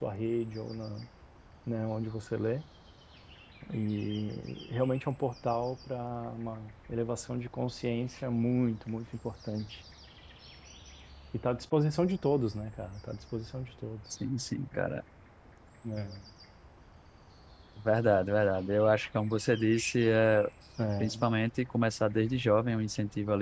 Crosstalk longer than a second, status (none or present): none